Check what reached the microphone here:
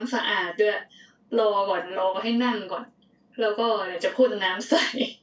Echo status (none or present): none